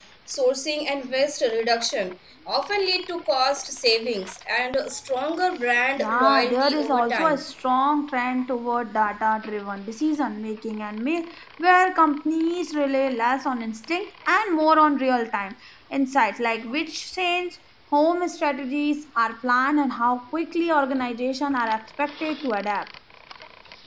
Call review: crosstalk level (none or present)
present